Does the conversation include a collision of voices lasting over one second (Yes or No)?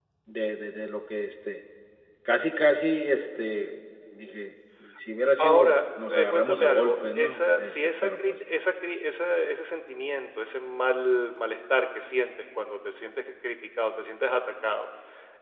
Yes